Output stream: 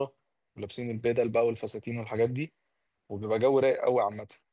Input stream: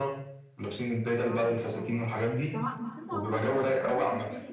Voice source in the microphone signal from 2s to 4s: both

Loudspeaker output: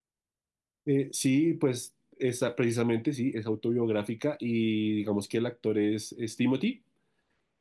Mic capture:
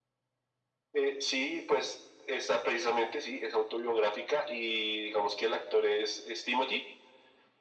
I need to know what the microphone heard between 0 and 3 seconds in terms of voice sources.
echo only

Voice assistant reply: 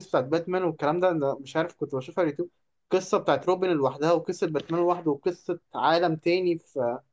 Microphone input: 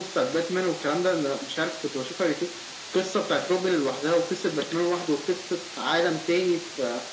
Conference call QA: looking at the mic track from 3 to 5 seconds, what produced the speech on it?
echo only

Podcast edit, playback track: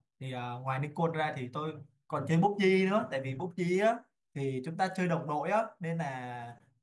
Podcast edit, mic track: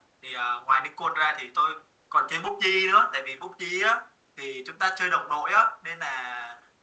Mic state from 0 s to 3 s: echo only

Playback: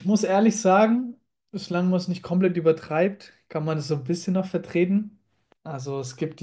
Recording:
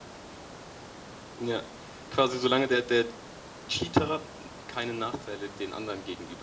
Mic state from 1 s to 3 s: user only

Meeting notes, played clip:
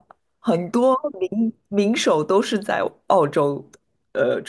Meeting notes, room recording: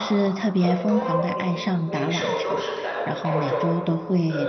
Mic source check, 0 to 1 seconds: both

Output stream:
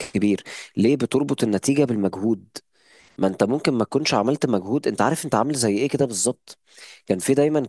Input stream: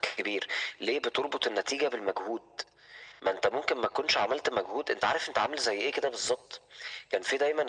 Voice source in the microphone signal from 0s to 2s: echo only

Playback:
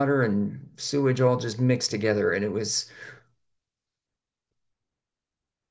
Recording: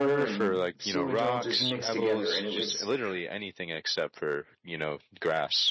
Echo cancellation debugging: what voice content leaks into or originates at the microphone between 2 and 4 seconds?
both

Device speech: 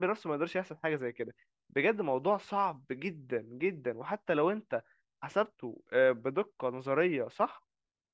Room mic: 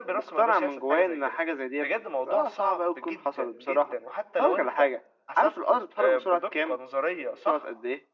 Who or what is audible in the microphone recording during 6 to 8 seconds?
both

